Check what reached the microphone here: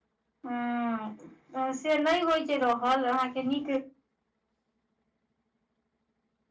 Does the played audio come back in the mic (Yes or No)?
No